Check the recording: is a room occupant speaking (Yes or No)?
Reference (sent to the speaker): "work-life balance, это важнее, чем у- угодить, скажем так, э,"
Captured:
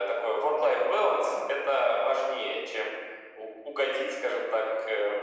No